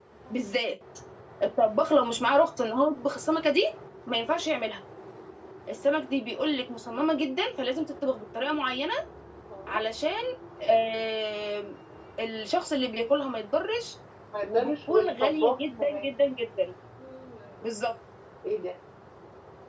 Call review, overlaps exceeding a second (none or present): present